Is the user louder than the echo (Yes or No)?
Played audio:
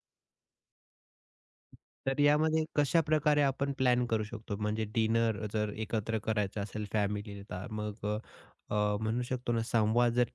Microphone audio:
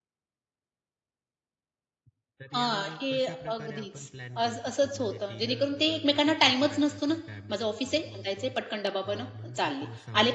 Yes